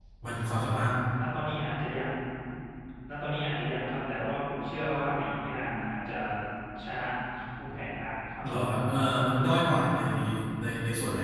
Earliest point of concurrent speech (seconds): none

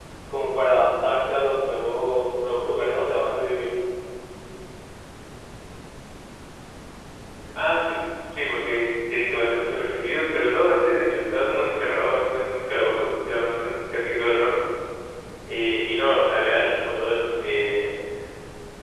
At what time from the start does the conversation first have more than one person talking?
none

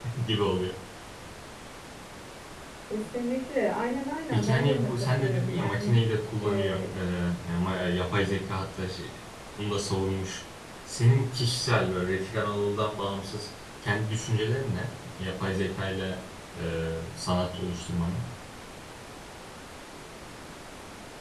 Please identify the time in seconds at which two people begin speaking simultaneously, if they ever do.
4.3 s

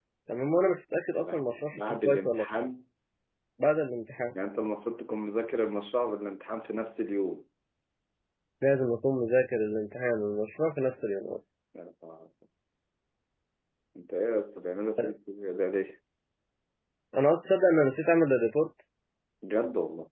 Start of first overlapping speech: 1.1 s

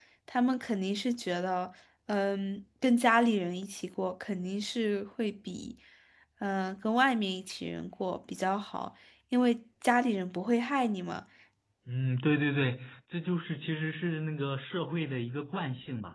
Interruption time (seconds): none

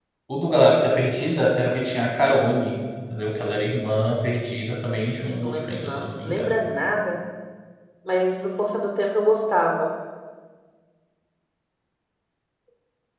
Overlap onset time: 5.2 s

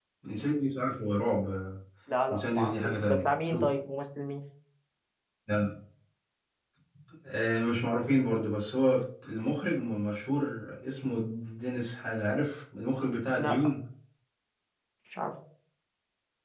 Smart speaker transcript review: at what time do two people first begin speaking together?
2.3 s

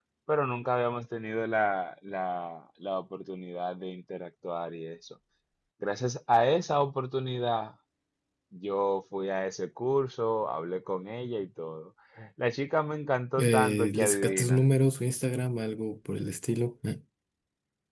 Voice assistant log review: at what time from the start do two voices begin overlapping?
13.4 s

